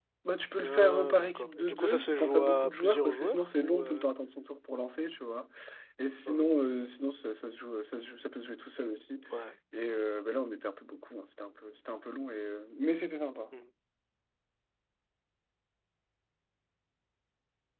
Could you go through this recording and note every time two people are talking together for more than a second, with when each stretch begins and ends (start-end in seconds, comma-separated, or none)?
0.6-4.0